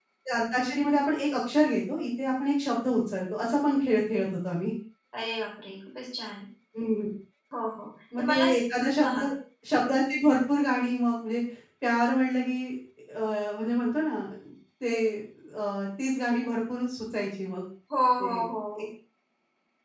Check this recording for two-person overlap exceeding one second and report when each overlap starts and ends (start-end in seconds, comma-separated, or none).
none